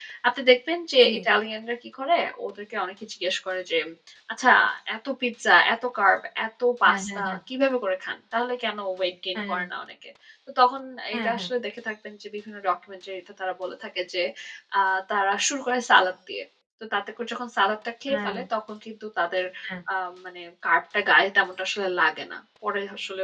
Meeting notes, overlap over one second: none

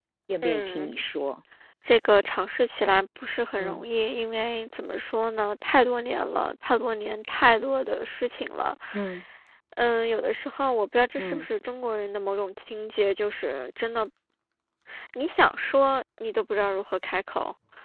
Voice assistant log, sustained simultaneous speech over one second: none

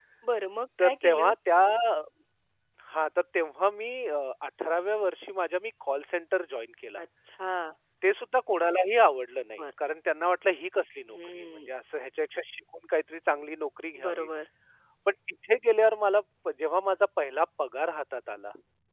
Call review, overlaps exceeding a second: none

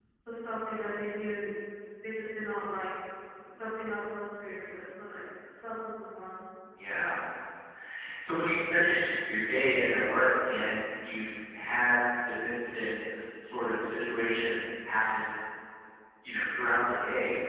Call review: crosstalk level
none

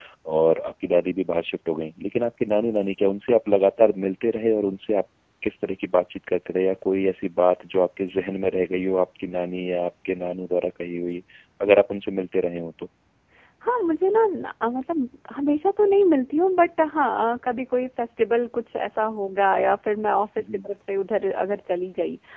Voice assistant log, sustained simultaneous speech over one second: none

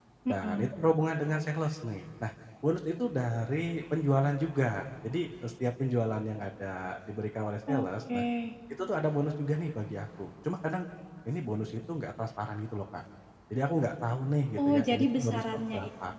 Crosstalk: present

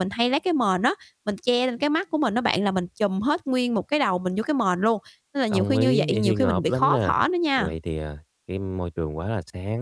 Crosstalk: present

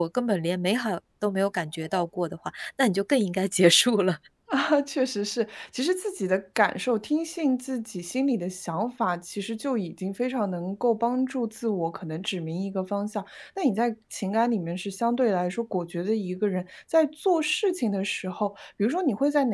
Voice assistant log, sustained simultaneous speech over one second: none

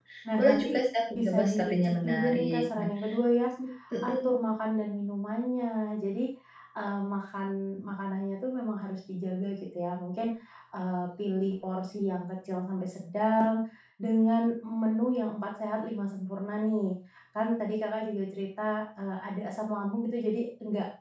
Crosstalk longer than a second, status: present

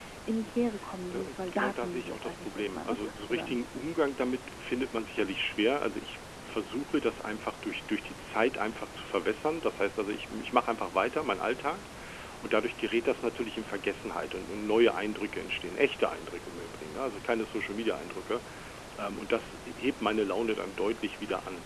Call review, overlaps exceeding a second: present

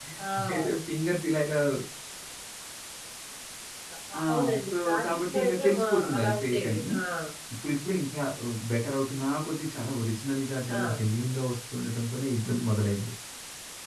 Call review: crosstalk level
present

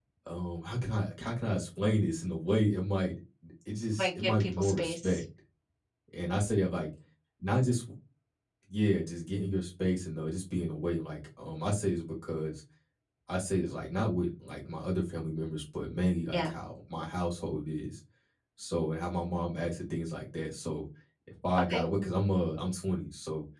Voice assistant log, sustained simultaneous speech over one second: present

